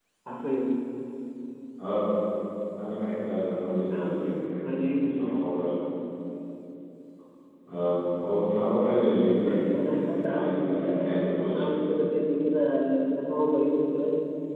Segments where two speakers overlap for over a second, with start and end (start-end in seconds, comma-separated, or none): 3.9-5.4, 9.4-11.7